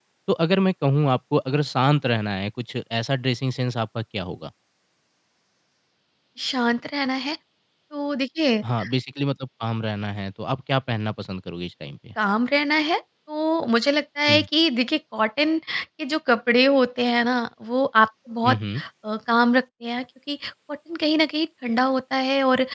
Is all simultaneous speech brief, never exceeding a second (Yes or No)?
Yes